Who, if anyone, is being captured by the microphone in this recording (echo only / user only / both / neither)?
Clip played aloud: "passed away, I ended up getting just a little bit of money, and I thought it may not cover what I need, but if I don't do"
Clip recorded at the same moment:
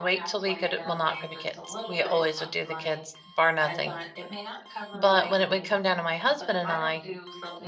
both